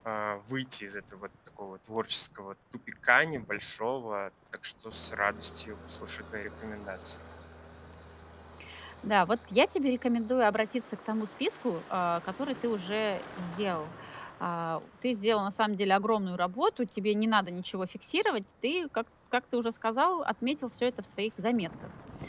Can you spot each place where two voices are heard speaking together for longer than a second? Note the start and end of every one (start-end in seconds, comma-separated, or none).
none